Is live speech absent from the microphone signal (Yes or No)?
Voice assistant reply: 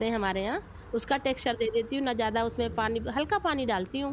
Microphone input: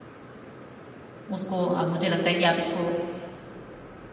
No